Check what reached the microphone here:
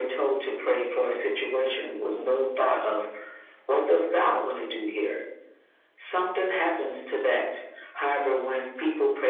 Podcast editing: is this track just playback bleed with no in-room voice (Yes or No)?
Yes